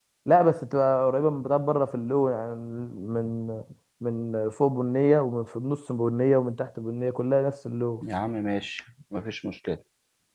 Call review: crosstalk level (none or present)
none